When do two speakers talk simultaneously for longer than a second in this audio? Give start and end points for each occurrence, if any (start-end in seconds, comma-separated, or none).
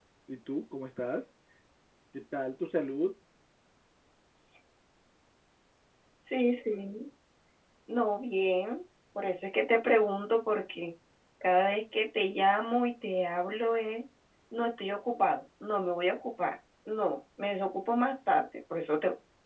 none